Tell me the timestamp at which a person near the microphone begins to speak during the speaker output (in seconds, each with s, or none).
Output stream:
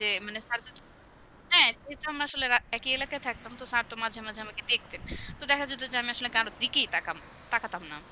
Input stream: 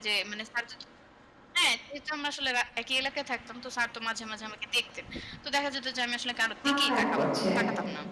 6.7 s